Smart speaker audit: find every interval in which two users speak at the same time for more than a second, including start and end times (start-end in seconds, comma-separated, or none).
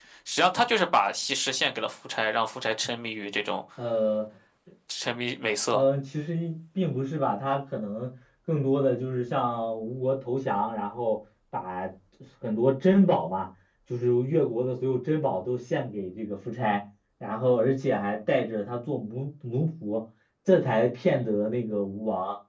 none